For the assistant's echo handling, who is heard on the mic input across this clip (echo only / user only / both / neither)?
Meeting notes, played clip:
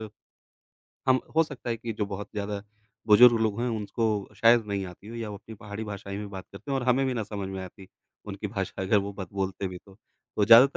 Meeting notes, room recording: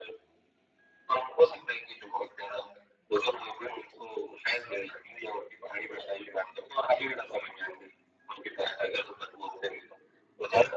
echo only